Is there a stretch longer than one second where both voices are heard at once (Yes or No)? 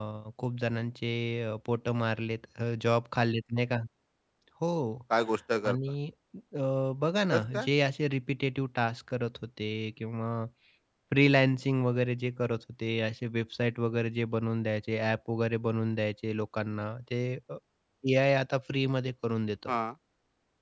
No